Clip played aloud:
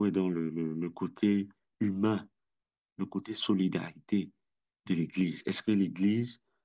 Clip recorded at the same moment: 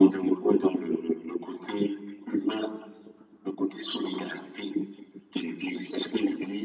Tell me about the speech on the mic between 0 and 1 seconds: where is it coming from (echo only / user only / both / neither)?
echo only